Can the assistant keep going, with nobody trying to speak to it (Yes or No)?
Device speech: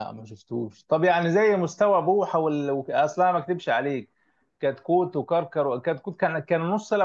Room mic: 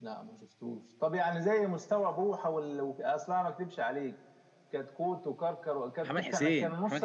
No